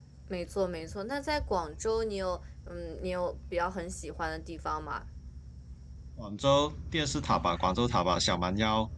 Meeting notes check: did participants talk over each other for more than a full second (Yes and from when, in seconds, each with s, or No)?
No